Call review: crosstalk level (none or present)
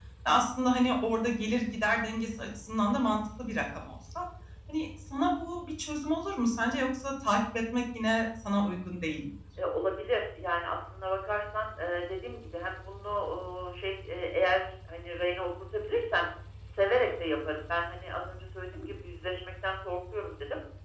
none